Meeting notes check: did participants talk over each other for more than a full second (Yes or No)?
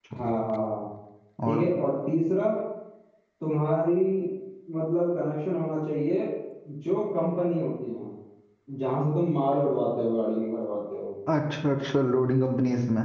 No